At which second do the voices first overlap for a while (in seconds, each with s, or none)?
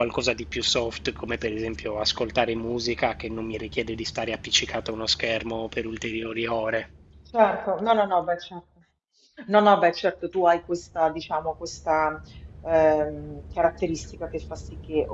none